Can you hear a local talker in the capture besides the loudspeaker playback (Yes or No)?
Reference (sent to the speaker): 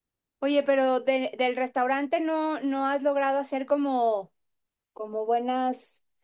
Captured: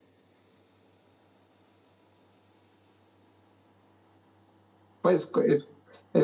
Yes